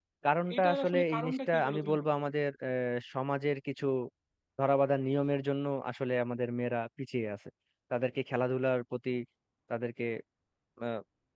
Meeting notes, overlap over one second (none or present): present